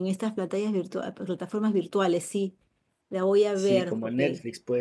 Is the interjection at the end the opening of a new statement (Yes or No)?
Yes